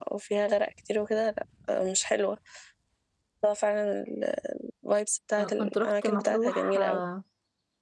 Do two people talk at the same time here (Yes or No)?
Yes